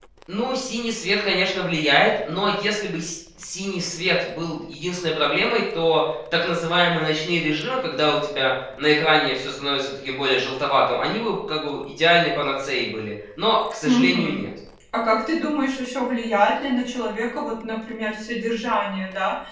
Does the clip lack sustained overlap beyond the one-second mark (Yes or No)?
Yes